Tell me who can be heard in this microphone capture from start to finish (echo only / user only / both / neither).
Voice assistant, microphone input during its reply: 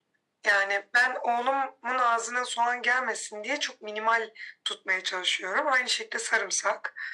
echo only